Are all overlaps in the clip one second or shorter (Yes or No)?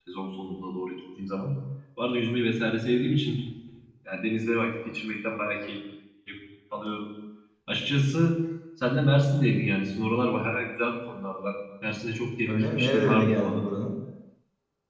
No